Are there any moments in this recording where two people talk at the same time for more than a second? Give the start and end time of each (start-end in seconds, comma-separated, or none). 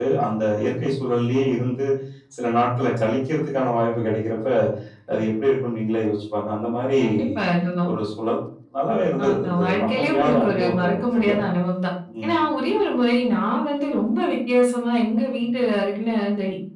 9.2-11.3